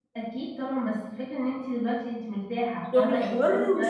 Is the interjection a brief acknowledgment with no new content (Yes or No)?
No